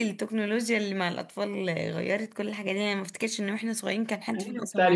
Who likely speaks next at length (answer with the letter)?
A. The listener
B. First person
A